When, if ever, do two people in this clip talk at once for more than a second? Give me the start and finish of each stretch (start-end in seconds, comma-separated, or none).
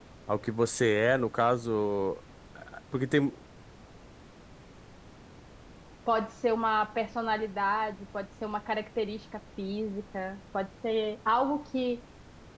none